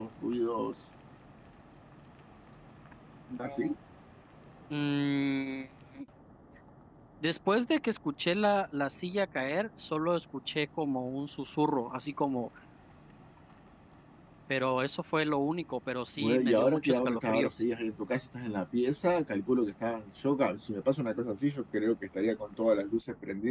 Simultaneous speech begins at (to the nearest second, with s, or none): 16 s